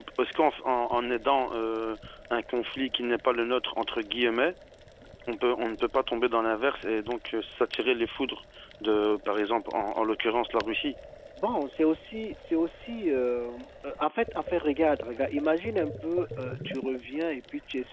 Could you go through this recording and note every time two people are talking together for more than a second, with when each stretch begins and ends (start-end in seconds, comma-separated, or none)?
none